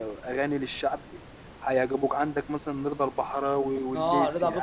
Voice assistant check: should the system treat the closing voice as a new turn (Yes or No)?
Yes